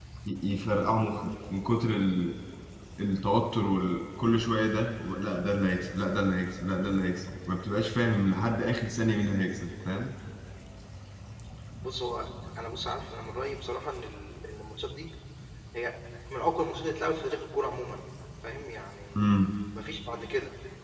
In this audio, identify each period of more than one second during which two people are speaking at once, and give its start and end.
none

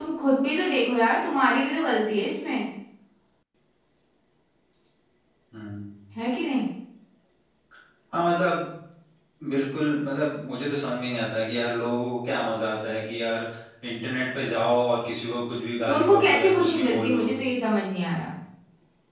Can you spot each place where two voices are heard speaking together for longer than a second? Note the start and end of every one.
15.9-17.3

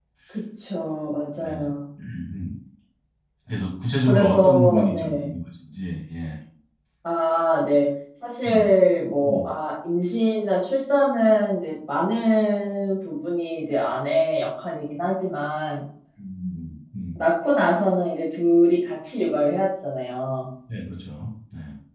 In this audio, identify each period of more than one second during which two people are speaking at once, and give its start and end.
4.1-5.3

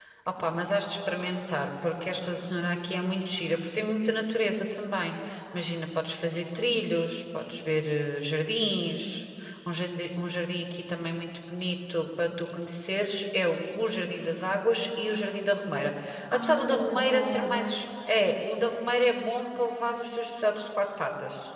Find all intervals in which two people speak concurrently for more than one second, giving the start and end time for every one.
16.3-17.8

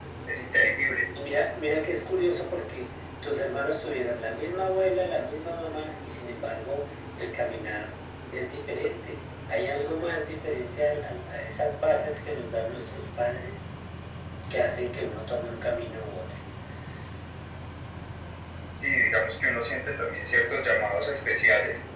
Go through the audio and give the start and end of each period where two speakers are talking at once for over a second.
none

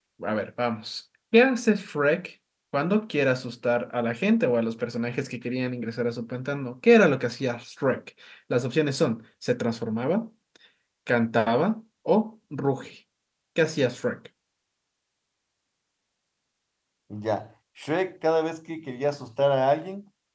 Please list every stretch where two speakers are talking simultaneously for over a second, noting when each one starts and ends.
none

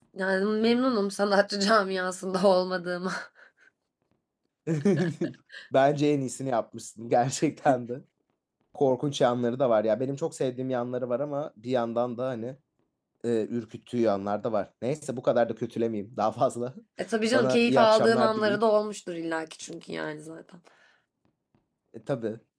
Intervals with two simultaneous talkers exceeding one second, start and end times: 17.3-18.6

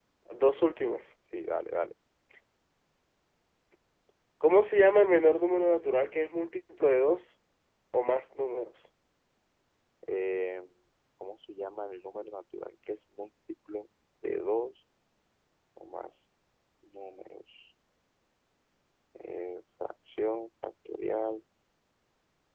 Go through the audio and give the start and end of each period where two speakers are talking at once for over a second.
none

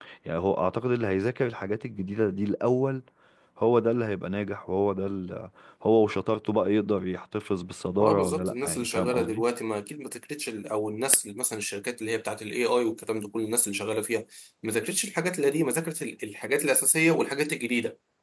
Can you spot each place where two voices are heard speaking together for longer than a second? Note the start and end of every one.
8.0-9.4

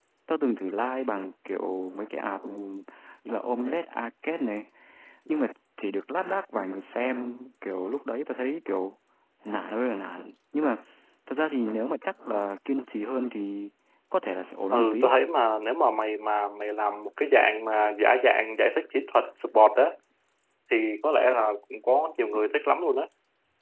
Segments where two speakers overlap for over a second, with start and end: none

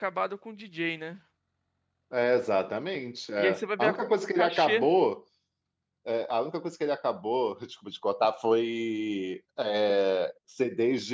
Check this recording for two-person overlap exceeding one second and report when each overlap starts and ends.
3.4-4.8

